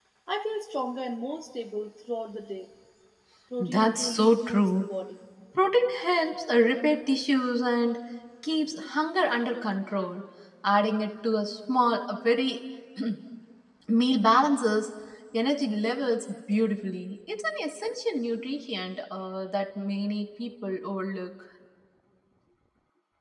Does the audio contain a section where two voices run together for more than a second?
Yes, from 3.6 s

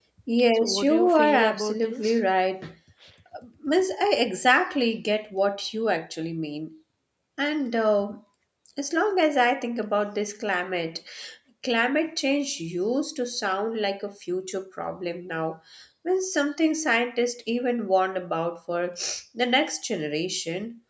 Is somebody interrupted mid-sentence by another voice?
Yes, from 0.5 s

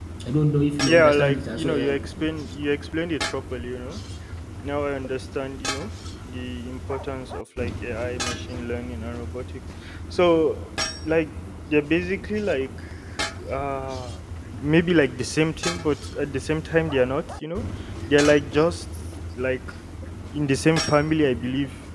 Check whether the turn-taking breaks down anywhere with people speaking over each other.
Yes, from 0.8 s

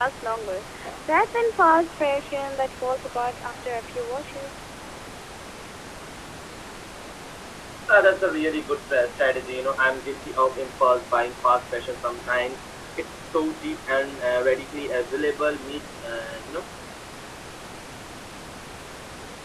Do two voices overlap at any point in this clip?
No

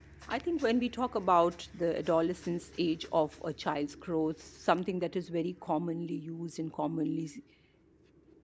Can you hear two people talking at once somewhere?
No

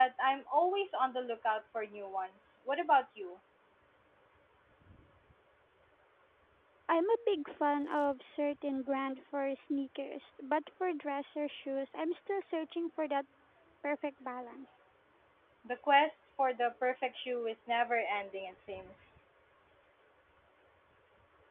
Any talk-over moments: No

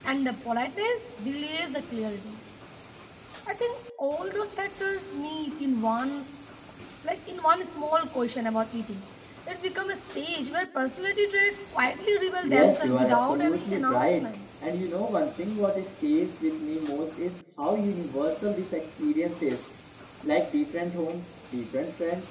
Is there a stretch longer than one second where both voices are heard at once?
Yes, from 12.4 s

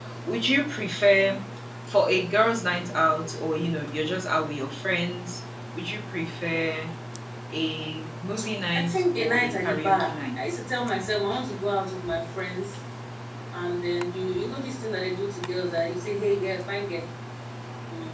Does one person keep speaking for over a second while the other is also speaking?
Yes, from 8.8 s

